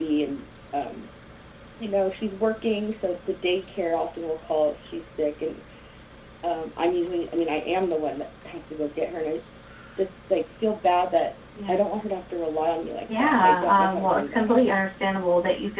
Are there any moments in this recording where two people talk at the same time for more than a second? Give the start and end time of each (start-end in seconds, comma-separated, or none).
13.2-14.6